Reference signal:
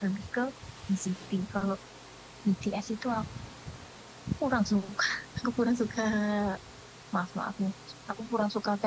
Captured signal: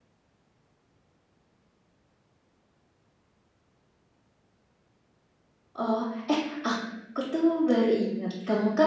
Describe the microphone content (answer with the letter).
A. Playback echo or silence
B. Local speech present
B